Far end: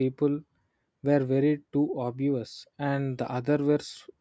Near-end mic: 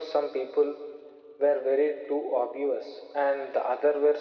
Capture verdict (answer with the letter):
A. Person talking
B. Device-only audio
B